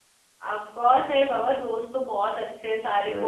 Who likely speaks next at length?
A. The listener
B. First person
B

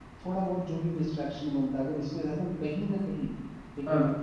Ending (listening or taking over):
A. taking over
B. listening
B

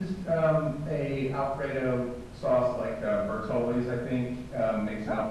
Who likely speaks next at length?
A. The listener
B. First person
B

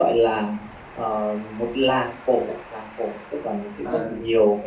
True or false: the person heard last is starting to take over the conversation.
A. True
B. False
B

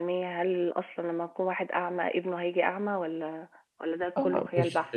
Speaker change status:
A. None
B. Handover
B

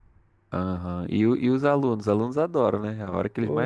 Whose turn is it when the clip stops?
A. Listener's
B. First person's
A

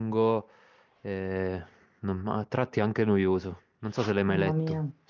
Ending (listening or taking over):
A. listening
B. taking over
B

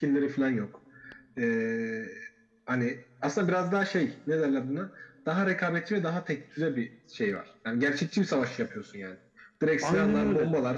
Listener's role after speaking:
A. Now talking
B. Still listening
B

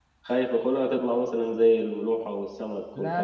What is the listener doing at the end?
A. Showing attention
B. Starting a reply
B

